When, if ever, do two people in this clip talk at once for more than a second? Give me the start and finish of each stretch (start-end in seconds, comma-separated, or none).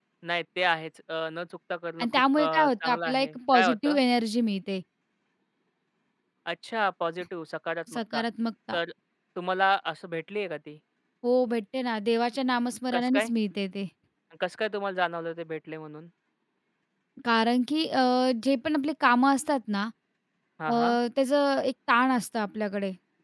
2.0-4.0